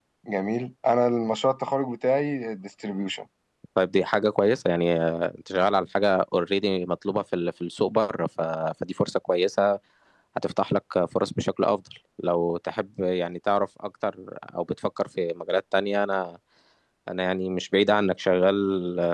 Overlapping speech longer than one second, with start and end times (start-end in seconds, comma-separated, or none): none